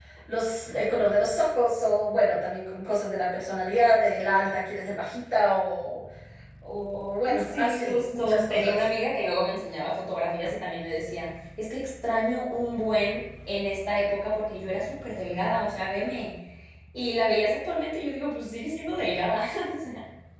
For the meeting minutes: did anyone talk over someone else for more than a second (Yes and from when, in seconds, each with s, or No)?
Yes, from 7.4 s